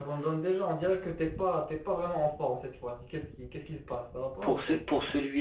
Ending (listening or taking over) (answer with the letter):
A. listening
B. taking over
B